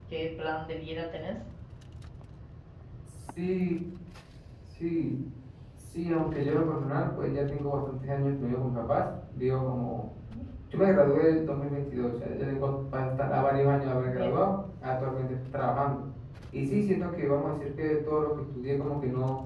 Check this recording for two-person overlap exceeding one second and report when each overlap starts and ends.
none

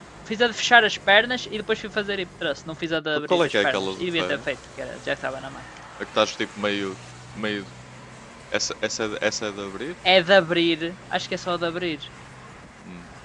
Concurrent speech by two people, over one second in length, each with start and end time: 3.1-4.4

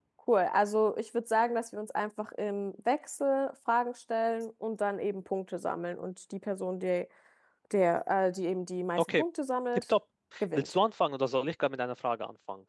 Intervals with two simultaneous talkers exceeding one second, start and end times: none

